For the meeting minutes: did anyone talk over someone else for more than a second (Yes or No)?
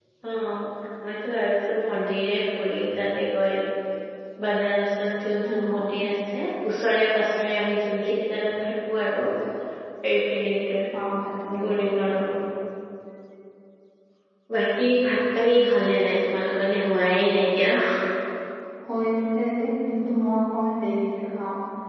No